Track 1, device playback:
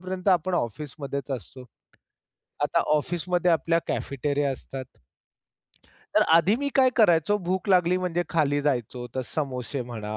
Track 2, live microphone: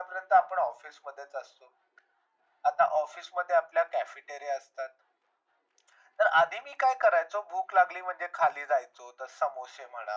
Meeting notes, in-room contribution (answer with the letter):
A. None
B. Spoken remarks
A